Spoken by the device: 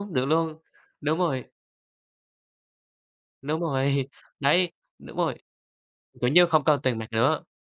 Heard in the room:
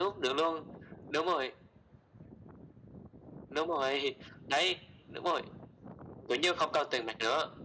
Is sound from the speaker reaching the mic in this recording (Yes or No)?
Yes